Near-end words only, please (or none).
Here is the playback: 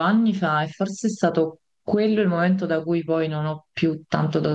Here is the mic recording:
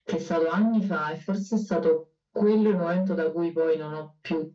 none